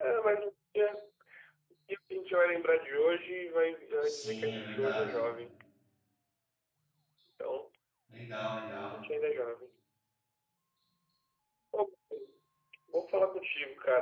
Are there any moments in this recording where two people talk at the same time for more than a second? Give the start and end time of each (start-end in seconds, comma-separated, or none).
4.0-5.2